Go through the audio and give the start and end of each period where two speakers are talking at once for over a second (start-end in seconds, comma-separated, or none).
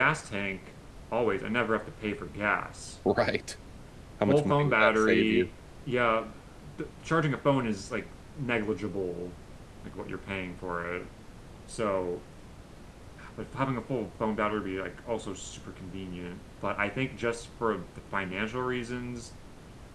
4.3-5.5